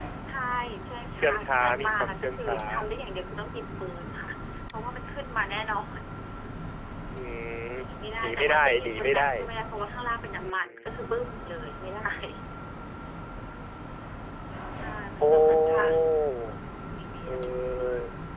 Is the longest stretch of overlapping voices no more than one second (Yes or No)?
No